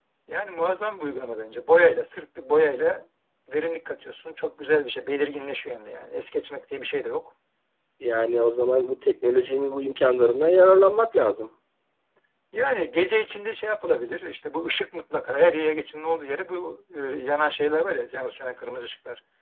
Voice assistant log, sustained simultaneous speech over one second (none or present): none